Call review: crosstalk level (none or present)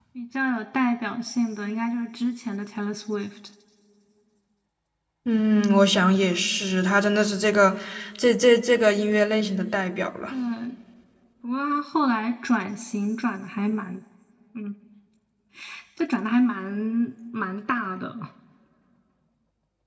none